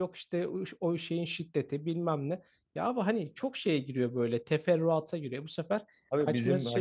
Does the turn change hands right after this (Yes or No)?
Yes